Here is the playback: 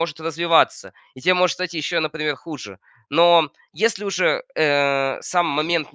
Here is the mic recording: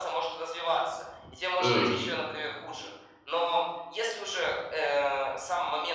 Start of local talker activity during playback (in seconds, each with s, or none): 1.6 s